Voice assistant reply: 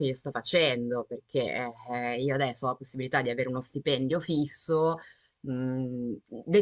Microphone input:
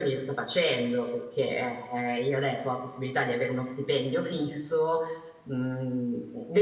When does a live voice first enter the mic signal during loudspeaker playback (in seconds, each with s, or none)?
none